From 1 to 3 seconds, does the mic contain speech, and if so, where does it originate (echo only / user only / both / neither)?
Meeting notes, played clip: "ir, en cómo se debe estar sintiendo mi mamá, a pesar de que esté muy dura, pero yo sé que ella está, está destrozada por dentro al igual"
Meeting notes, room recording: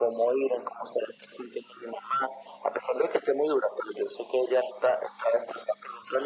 echo only